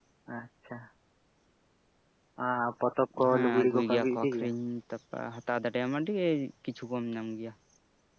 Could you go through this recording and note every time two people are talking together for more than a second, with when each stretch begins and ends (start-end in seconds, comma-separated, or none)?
3.3-4.5